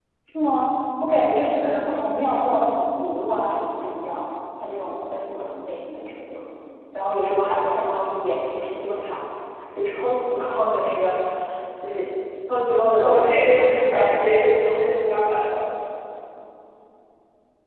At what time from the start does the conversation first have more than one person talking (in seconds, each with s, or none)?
12.9 s